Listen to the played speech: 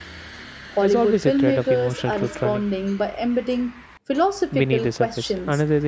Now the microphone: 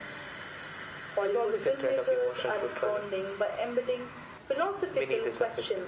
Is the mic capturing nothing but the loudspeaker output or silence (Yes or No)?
Yes